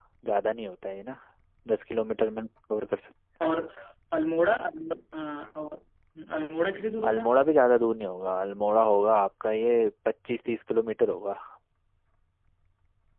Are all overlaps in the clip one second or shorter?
Yes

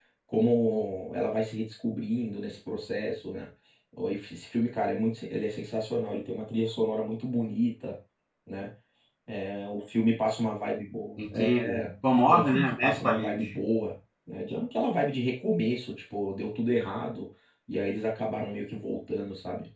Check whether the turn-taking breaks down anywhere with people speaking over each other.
Yes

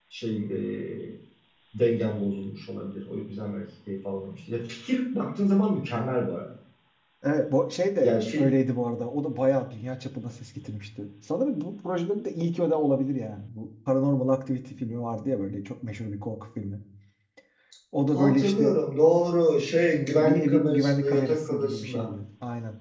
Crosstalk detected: Yes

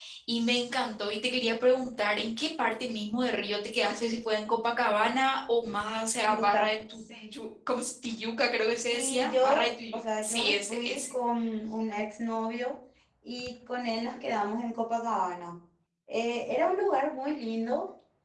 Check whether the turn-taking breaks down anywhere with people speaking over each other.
Yes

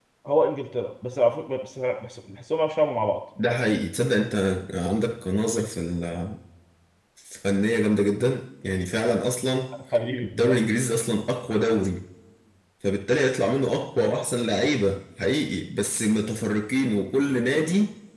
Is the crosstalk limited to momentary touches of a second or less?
Yes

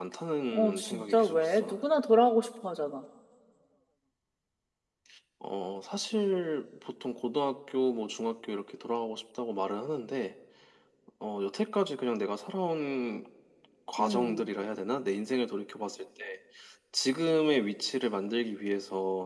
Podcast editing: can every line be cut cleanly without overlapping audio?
No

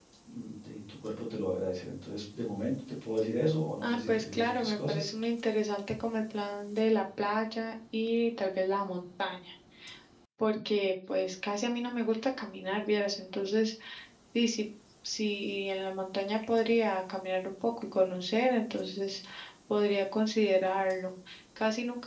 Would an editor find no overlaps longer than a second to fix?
No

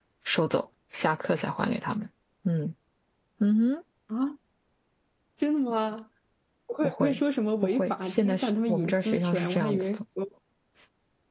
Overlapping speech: Yes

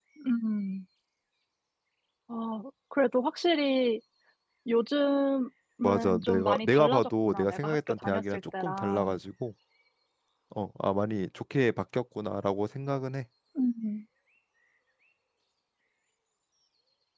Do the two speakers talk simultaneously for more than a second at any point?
Yes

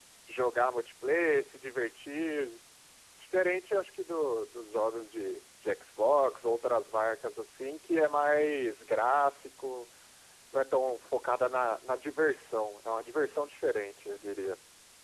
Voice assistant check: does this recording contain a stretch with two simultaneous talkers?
No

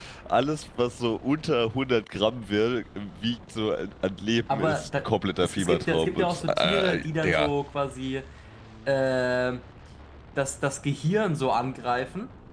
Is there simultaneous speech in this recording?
Yes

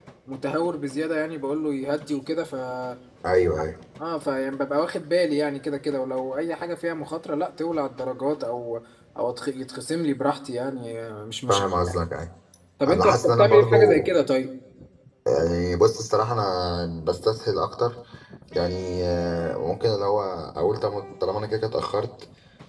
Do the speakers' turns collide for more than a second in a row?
Yes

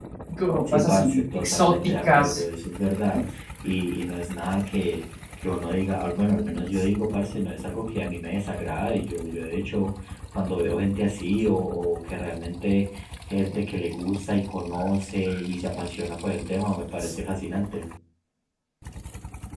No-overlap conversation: No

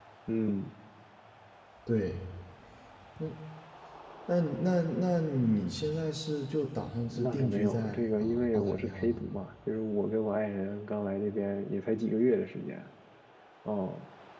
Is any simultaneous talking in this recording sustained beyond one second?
Yes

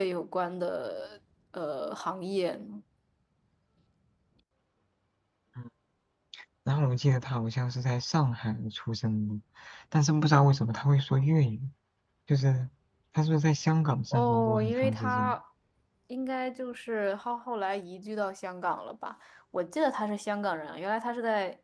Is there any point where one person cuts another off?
Yes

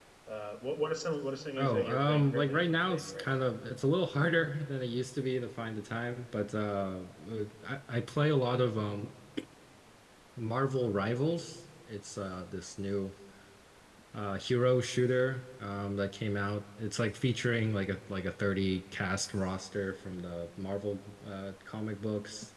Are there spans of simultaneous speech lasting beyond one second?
Yes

